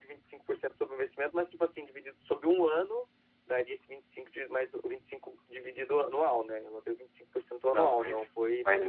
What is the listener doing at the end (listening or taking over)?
taking over